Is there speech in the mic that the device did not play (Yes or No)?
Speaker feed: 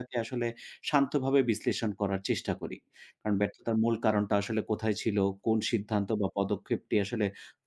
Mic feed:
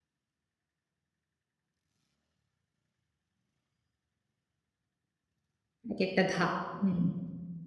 Yes